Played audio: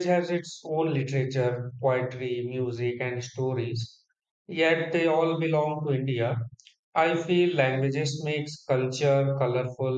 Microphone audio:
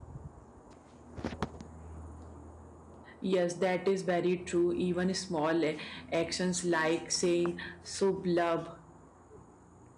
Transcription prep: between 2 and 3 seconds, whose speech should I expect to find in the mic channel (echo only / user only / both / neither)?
neither